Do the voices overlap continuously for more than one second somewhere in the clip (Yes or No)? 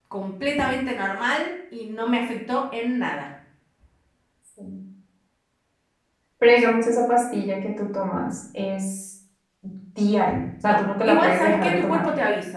Yes